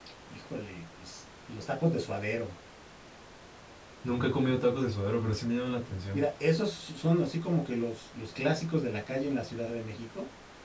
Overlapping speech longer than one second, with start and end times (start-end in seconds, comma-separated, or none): none